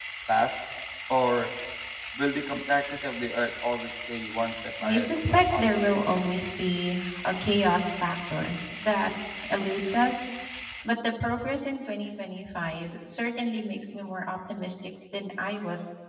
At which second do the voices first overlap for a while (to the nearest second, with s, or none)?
5 s